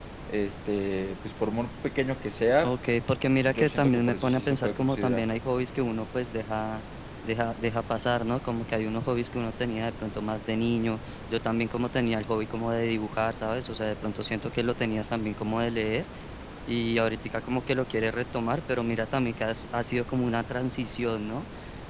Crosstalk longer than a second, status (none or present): present